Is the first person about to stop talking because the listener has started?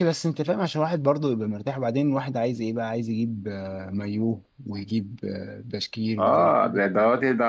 Yes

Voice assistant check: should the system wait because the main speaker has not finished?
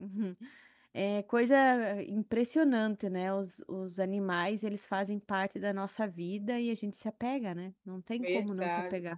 No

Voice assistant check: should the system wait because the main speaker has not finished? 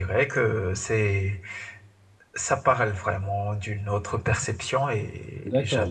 No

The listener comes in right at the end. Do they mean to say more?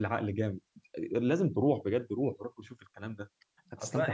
Yes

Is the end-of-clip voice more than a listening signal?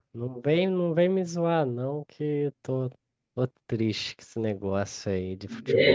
Yes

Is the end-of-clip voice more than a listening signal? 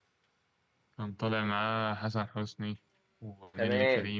Yes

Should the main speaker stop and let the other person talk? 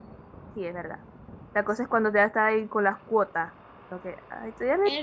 Yes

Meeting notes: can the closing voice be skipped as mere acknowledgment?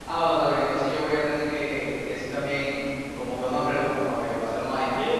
No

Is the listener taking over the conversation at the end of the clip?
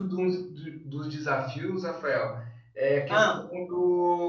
No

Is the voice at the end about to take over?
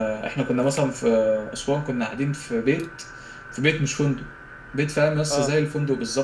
No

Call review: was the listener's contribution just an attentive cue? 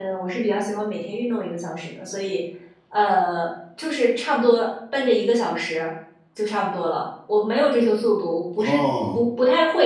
Yes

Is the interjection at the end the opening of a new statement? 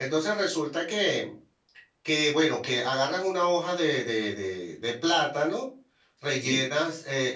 No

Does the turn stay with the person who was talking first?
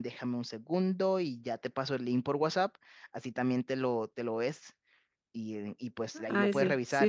No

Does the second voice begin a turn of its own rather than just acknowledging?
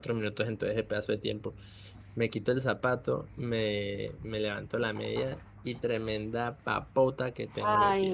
Yes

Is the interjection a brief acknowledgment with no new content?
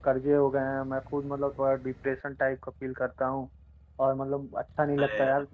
Yes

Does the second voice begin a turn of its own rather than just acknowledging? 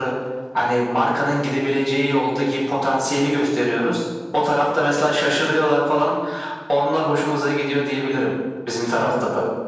Yes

